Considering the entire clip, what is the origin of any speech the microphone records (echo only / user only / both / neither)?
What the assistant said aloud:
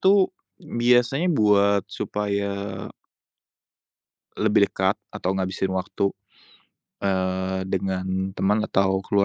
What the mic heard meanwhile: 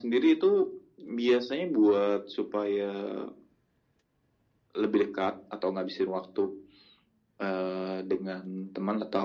echo only